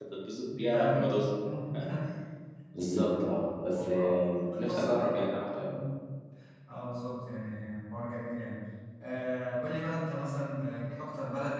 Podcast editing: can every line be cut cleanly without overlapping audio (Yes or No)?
No